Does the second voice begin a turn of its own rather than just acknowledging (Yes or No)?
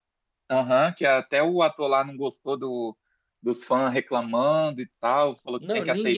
Yes